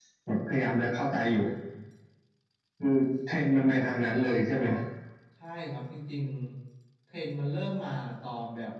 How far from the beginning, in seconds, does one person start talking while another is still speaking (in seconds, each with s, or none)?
none